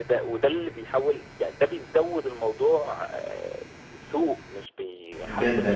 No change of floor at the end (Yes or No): No